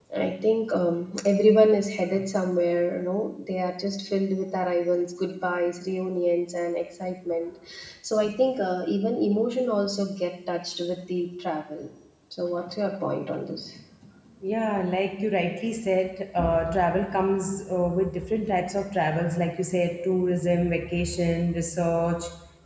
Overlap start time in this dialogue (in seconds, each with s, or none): none